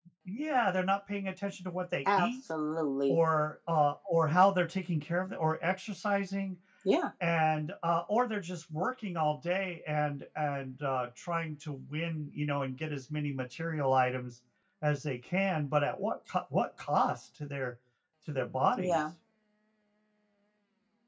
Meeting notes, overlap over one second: none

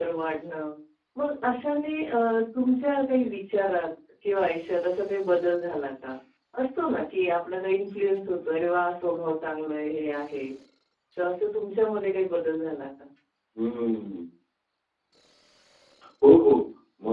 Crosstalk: none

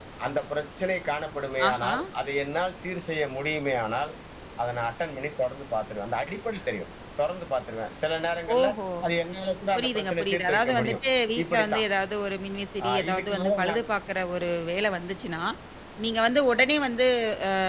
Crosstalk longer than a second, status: present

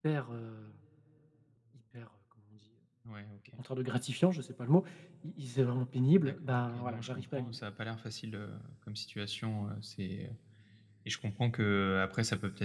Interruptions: present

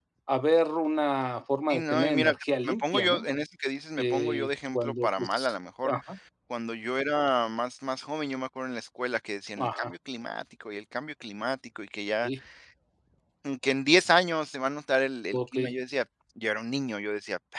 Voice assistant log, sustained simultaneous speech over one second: present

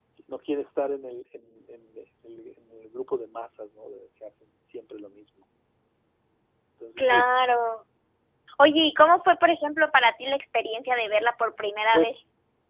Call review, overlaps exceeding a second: none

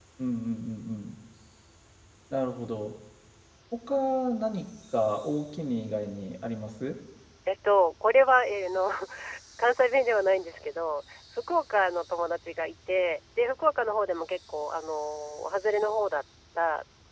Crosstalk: none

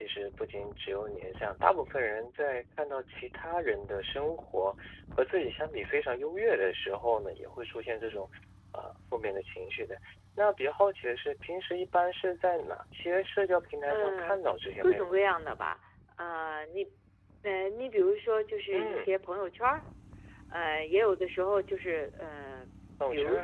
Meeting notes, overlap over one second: none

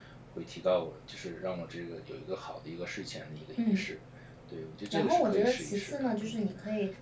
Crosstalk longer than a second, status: present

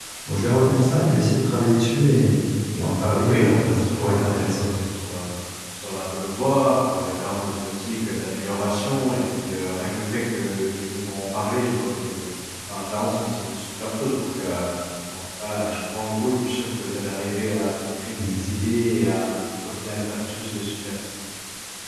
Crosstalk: present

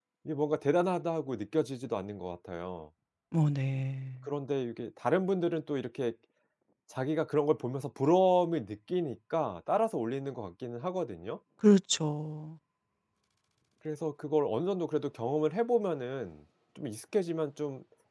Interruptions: none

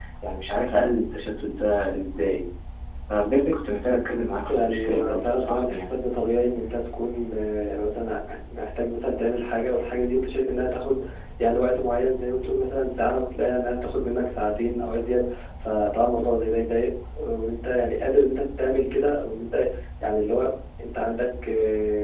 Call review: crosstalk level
present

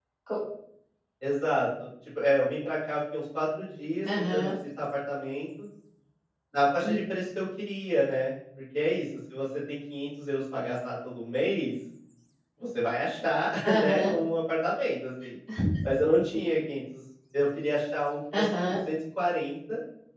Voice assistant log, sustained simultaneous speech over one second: none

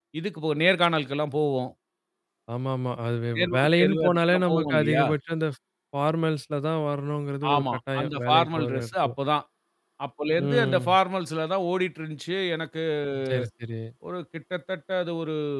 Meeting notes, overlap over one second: present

